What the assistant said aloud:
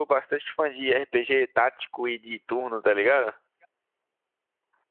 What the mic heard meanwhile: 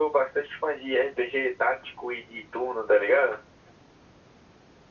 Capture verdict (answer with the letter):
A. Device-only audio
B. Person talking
A